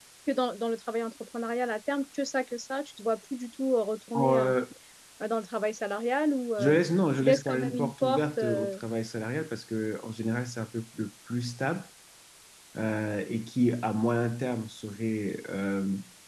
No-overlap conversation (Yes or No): No